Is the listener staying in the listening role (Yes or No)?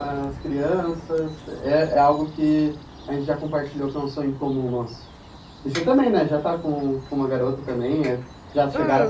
No